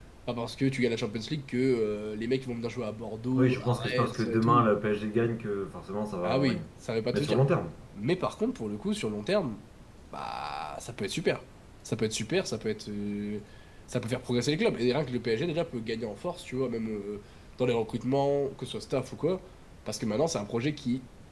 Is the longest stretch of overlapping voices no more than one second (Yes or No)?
No